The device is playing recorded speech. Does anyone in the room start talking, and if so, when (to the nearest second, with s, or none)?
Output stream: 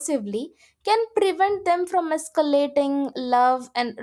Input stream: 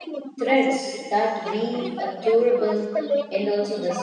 0 s